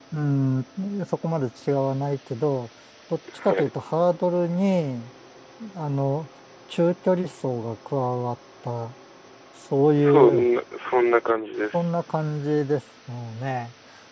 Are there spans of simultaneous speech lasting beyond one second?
No

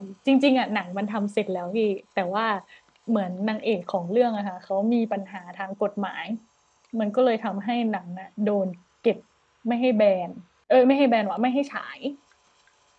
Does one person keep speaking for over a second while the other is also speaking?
No

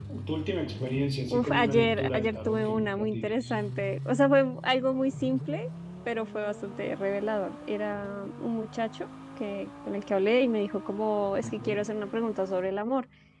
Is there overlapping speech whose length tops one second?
Yes, from 1.3 s

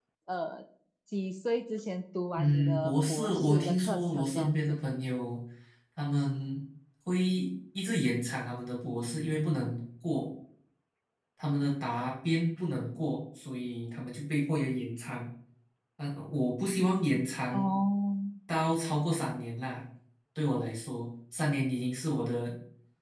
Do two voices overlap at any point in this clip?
Yes, from 2.4 s

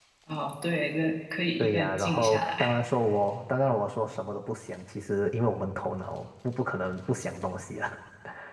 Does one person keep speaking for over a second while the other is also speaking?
Yes, from 1.6 s

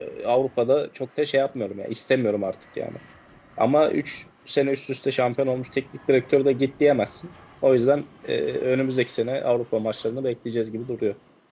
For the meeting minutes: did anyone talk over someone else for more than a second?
No

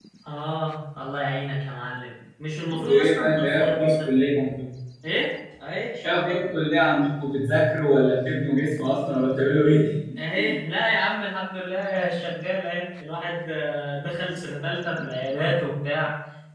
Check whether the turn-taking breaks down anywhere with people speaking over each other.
Yes, from 2.9 s

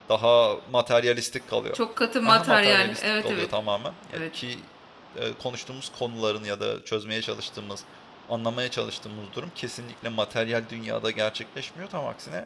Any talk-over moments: Yes, from 2.2 s

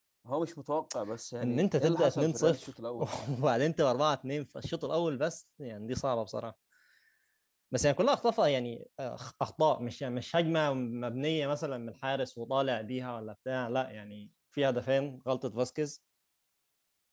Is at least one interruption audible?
Yes, from 1.4 s

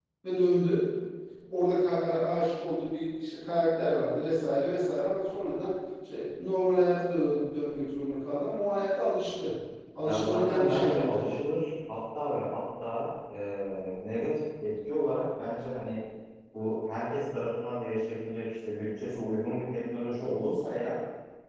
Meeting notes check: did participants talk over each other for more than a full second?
Yes, from 10.0 s

